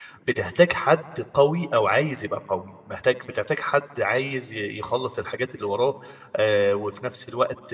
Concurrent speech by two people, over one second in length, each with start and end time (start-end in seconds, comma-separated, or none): none